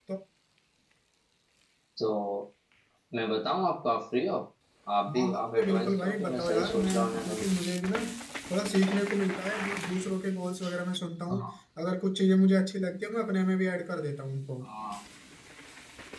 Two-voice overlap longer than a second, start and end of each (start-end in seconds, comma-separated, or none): 5.2-7.4